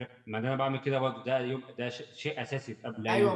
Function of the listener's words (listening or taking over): taking over